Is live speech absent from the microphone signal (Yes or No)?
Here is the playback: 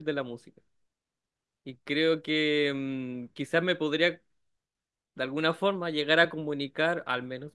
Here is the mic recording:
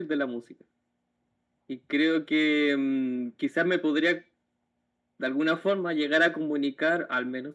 Yes